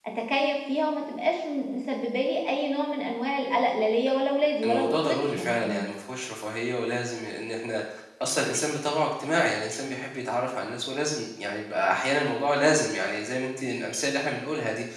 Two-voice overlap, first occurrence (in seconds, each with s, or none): 4.6 s